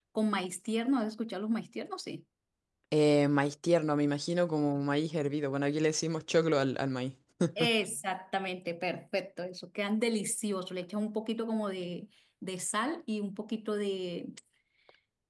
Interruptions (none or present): none